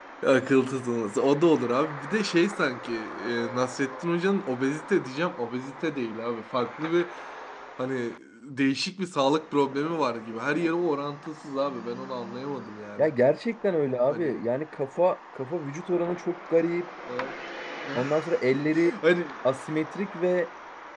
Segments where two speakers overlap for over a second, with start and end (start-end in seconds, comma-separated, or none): none